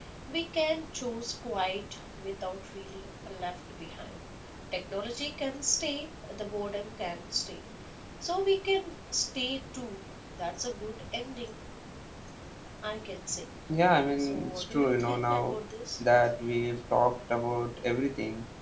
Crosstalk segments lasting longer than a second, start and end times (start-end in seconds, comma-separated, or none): 14.2-15.6